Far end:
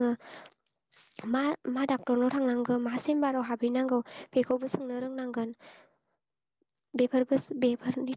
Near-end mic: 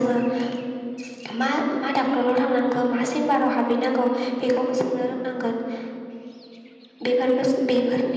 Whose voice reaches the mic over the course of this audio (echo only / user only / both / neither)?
echo only